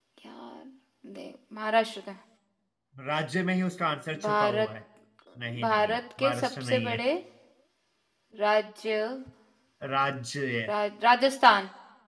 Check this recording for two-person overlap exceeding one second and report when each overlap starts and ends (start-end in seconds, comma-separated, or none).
5.6-7.0